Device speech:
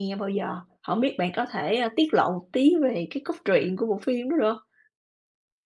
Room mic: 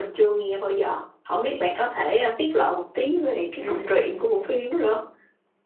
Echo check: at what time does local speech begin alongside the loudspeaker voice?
3.6 s

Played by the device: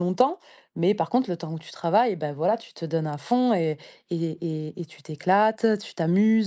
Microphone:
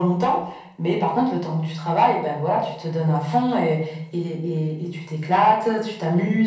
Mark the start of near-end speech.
none

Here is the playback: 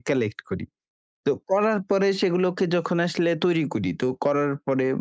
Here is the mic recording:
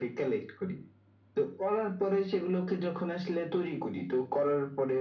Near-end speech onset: none

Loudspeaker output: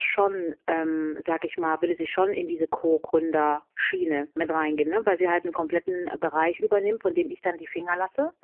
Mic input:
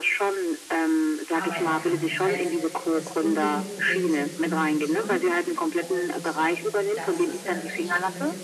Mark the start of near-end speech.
1.3 s

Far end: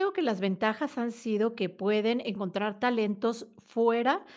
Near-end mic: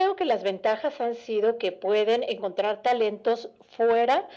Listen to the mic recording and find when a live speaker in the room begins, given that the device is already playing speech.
none

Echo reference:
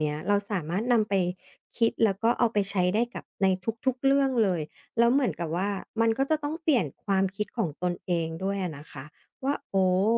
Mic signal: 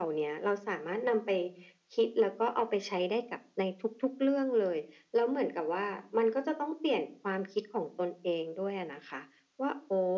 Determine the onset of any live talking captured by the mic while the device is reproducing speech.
none

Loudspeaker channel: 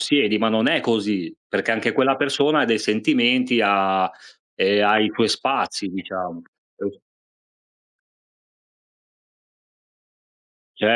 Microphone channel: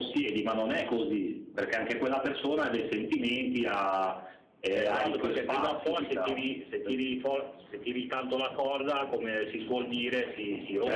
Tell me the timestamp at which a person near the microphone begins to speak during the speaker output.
4.8 s

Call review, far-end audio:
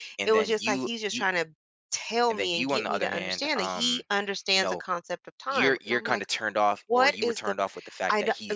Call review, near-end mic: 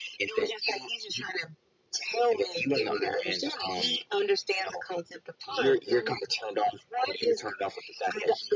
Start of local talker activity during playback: none

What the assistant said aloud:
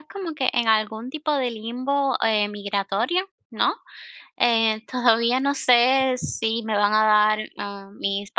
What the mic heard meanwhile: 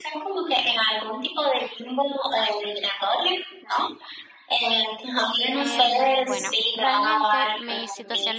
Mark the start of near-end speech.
5.6 s

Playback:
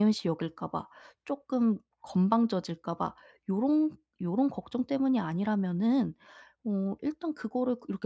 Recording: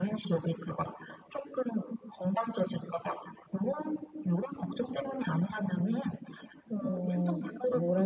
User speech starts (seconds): 6.8 s

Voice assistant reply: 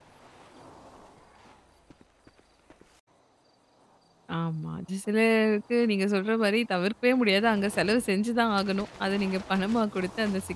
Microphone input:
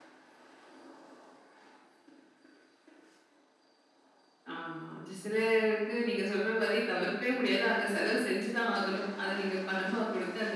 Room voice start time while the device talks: none

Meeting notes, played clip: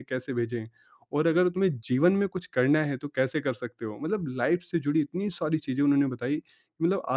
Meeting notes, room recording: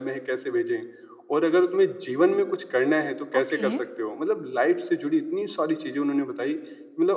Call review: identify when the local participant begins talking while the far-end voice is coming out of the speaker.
3.4 s

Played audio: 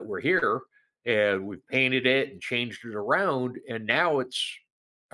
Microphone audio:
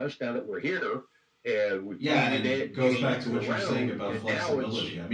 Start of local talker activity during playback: 2.0 s

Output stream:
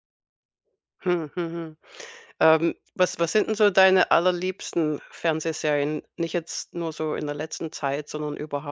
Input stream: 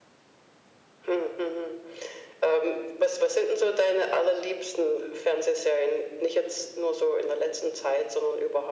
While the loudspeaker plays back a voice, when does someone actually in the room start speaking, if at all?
none

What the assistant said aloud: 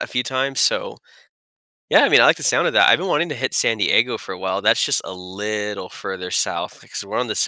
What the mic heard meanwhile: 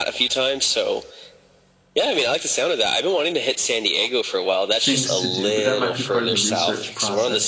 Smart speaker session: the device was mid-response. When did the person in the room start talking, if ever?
4.8 s

